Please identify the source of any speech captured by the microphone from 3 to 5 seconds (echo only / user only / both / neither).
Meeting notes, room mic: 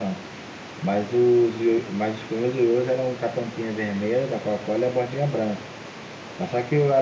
user only